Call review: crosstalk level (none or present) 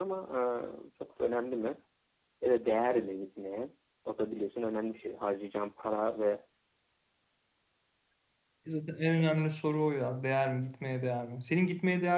none